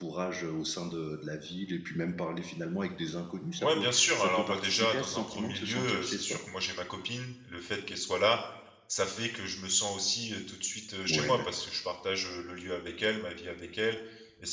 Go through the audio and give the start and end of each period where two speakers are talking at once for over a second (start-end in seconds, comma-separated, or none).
3.6-6.4